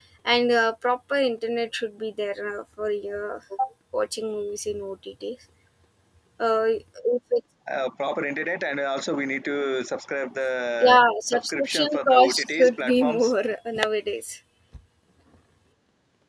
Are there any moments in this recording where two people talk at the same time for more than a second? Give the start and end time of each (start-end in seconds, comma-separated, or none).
10.8-13.3